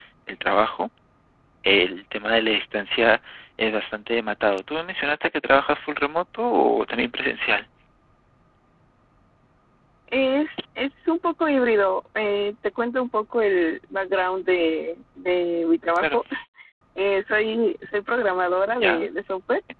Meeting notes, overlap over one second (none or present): none